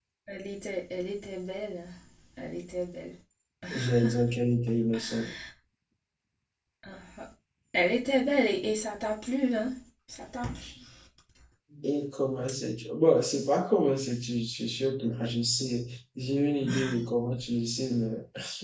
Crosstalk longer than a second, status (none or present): none